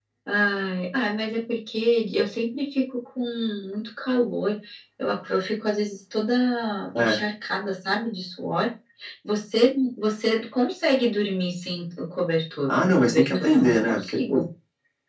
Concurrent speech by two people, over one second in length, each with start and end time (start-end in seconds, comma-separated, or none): 12.7-14.4